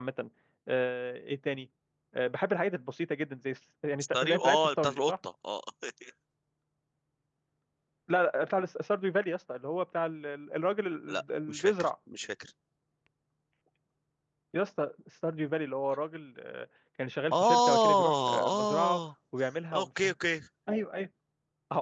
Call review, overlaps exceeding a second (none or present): present